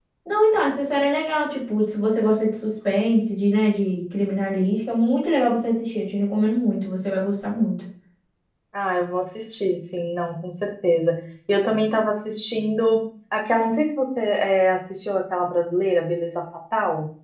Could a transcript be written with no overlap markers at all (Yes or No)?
Yes